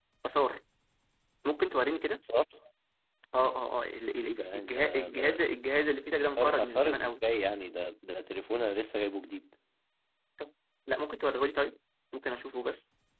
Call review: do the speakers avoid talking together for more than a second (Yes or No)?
No